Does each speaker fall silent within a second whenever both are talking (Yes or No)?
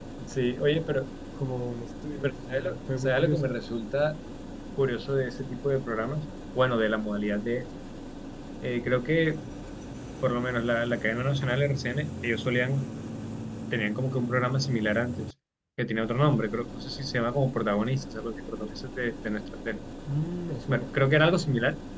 No